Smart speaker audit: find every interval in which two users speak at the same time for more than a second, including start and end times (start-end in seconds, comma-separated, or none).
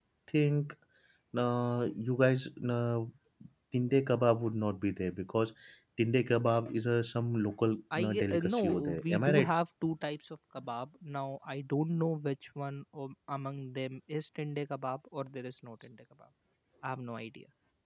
8.0-9.5